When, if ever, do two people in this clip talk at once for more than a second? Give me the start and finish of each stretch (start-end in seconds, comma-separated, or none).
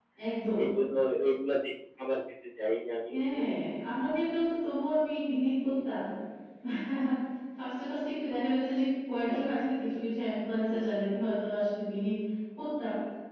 none